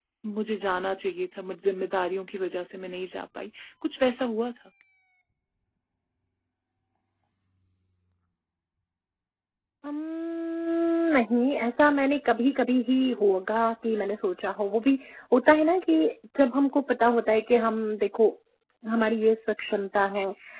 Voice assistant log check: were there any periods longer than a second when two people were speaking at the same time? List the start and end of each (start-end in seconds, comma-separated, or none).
none